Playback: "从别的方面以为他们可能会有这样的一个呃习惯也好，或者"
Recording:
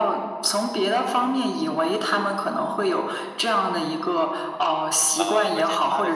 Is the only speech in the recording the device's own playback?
No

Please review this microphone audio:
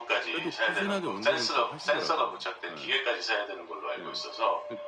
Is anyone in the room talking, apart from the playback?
Yes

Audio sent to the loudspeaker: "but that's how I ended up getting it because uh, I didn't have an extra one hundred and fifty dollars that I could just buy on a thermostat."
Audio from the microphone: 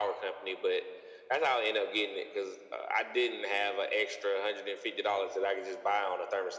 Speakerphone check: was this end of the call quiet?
Yes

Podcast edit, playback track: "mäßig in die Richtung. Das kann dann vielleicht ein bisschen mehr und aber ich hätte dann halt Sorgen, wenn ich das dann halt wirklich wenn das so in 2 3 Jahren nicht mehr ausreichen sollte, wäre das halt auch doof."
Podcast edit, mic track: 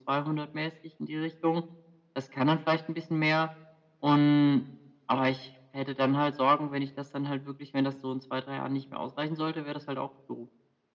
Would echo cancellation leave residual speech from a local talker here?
No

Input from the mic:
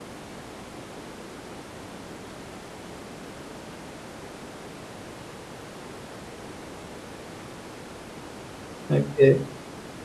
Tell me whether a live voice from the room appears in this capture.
Yes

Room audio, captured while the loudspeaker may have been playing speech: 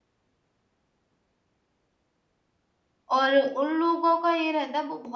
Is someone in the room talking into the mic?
Yes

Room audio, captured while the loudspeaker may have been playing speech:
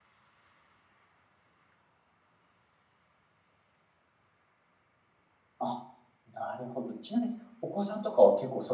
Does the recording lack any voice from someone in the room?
No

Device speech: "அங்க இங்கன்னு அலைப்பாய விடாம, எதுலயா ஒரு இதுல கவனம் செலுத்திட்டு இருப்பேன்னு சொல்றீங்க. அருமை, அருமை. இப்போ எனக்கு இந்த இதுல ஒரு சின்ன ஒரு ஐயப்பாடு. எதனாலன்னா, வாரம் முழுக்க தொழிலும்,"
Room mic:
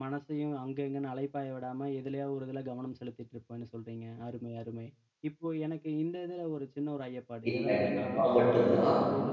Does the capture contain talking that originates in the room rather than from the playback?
Yes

